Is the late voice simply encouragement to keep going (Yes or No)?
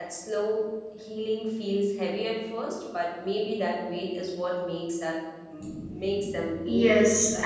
No